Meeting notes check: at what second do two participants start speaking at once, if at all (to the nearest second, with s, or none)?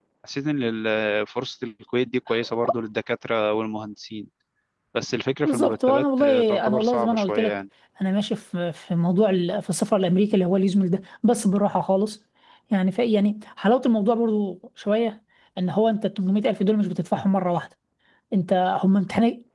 5 s